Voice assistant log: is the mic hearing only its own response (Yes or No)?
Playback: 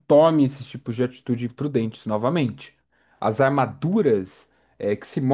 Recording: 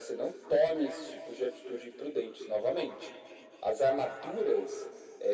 Yes